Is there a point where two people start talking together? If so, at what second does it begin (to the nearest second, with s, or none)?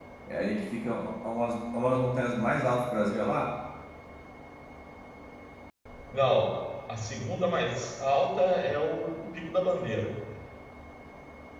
none